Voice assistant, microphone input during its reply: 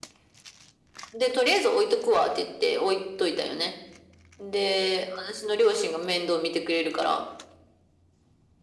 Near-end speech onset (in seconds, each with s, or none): none